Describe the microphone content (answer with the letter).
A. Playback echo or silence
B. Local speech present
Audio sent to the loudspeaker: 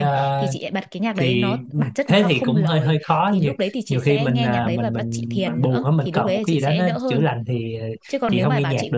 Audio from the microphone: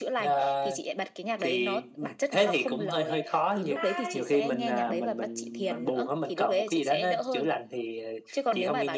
B